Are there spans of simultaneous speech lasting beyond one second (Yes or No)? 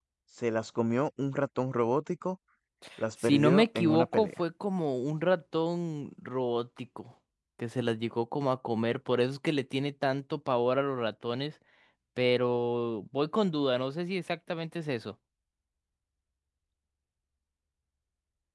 Yes